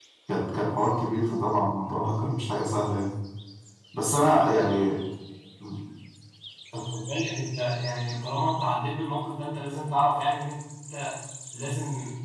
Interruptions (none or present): none